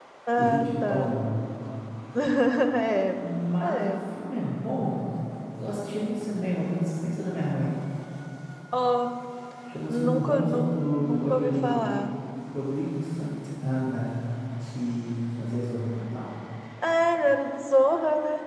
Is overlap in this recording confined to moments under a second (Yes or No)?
No